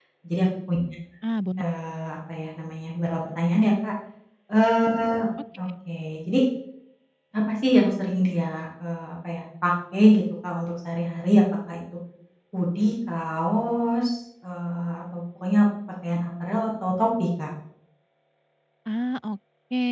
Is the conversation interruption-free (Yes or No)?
Yes